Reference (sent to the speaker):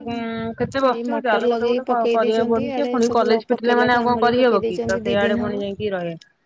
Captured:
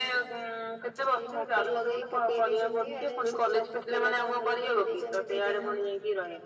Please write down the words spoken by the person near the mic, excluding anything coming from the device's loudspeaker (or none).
none